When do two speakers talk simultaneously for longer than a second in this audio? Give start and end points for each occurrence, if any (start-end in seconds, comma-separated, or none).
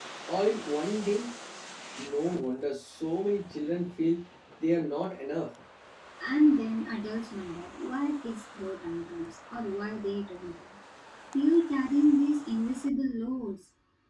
none